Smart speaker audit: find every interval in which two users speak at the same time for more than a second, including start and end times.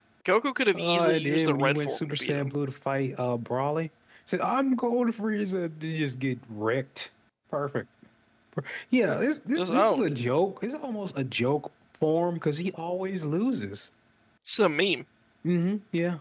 0.7-2.5

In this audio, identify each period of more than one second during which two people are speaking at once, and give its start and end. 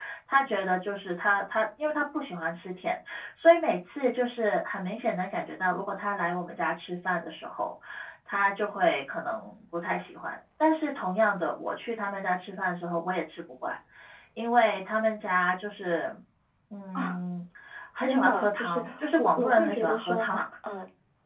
18.1-20.3

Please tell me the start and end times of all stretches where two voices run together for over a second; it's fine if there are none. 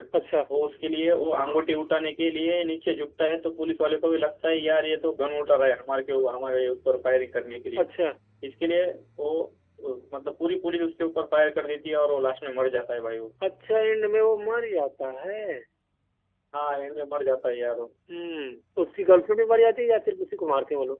none

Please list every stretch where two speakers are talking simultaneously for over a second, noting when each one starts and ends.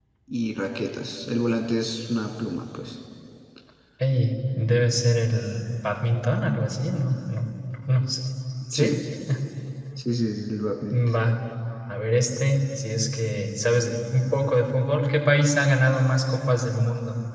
none

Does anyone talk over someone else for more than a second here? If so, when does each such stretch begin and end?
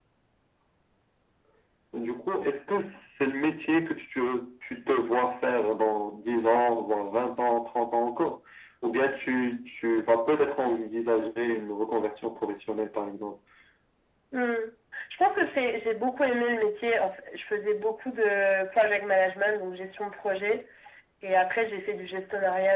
none

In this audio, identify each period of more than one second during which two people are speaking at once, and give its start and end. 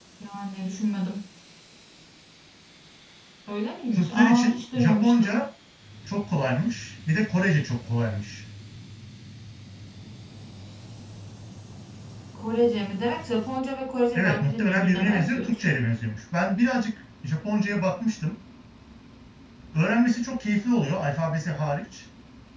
3.9-5.5, 14.1-15.6

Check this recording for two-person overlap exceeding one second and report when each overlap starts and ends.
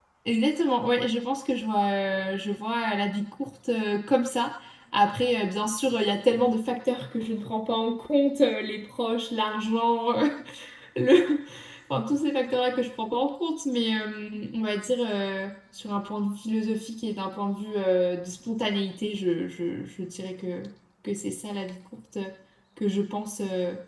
none

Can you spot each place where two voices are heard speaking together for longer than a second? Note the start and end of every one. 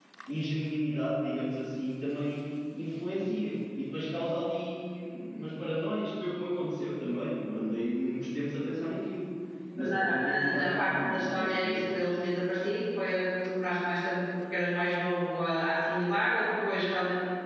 9.8-12.0

